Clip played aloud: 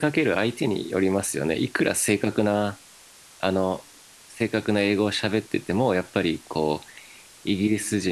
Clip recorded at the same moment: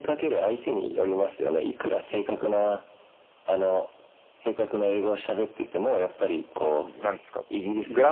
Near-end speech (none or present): present